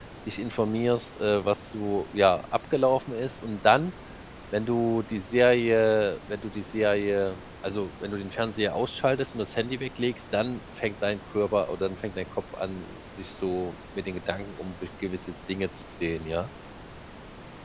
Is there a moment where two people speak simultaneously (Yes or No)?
No